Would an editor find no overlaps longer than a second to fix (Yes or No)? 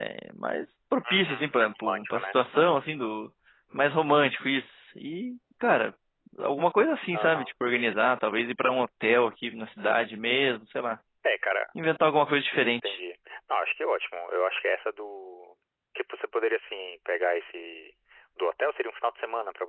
Yes